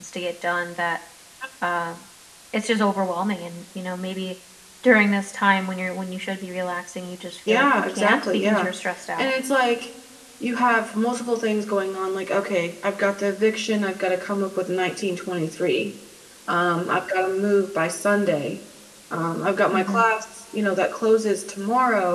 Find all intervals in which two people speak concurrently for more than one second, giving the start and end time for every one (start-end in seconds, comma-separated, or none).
7.5-8.7